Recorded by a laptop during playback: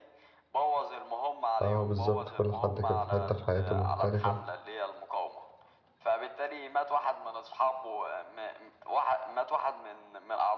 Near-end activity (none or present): present